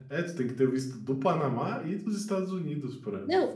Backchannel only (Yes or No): No